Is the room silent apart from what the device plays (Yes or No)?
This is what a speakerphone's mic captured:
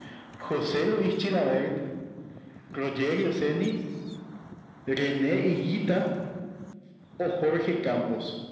Yes